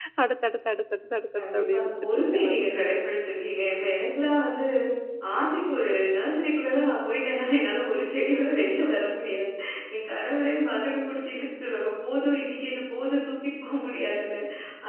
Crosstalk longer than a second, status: present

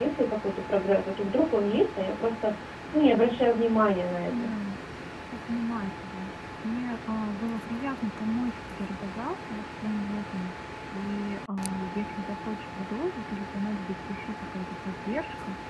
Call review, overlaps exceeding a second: none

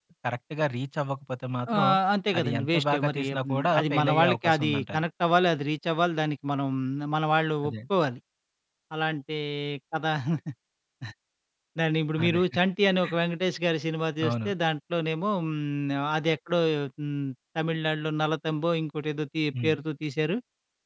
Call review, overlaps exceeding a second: present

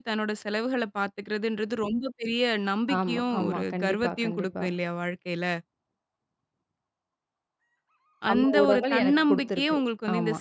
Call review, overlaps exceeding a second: present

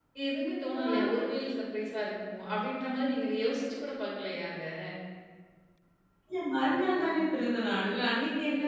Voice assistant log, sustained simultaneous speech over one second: none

